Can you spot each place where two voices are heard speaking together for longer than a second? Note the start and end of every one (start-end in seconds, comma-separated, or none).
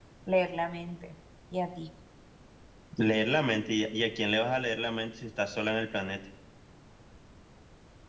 none